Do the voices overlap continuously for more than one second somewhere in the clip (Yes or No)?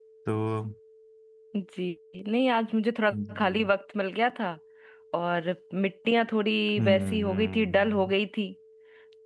Yes